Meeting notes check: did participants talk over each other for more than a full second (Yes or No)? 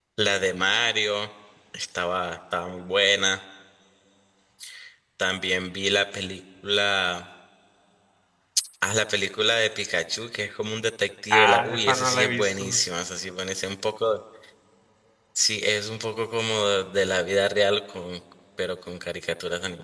Yes